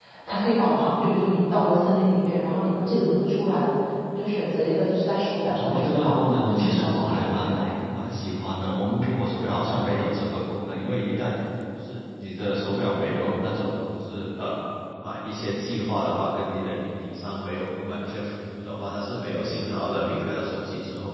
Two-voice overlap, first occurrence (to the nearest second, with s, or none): 5 s